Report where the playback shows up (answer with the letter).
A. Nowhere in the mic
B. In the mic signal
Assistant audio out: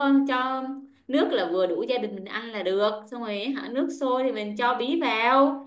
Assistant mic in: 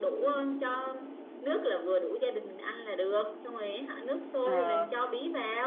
B